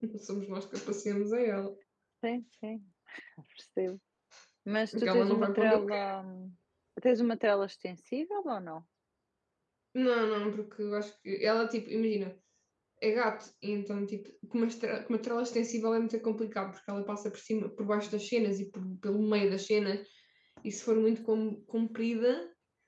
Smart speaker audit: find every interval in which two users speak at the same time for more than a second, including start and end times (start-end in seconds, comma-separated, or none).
4.9-6.2